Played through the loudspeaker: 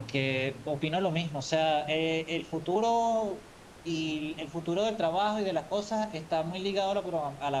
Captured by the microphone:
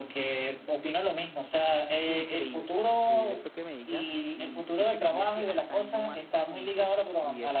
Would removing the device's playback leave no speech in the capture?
No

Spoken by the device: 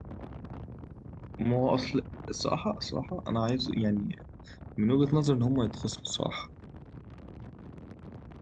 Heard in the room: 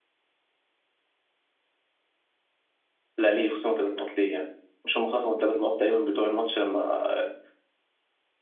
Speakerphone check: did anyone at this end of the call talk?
Yes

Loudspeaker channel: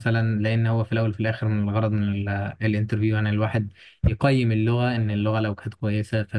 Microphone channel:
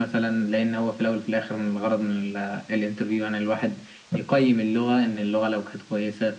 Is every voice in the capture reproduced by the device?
Yes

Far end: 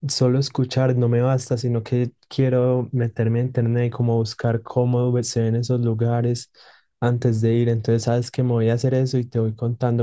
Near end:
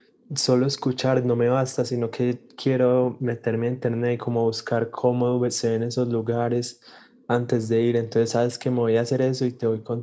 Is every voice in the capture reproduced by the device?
Yes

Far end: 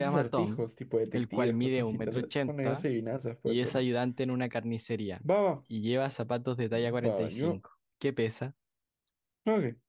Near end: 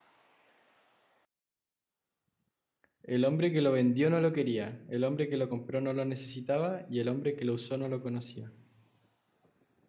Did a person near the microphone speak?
Yes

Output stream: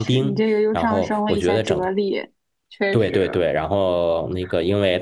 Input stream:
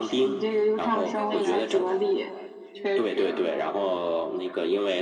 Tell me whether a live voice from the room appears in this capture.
Yes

